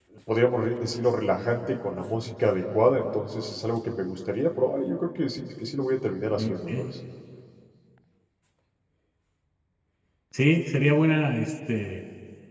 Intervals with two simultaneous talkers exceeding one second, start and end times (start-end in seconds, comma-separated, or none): none